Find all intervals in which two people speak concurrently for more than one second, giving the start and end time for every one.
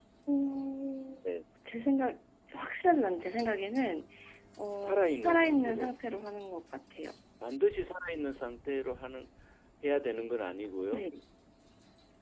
4.8-6.0

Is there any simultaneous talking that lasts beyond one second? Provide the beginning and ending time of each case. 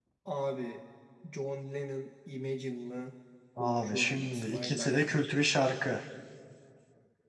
3.6-5.2

